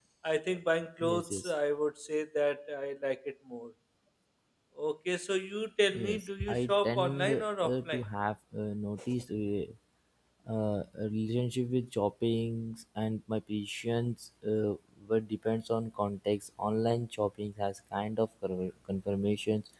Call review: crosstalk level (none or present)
present